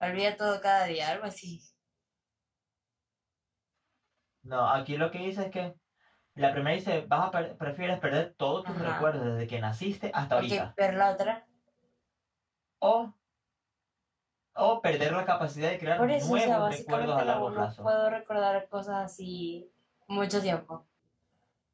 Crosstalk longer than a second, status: present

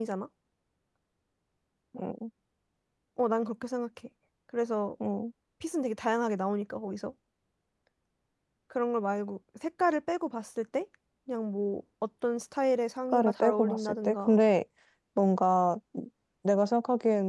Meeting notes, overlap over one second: present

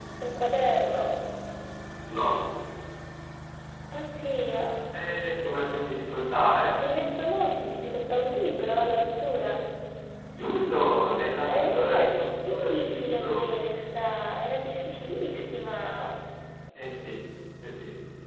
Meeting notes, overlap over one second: present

